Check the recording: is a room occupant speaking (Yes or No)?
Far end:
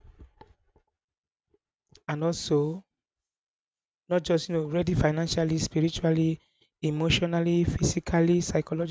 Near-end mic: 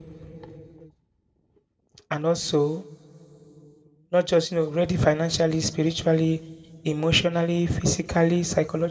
No